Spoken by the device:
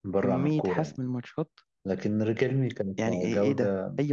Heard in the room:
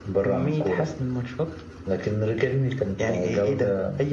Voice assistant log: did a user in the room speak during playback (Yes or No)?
No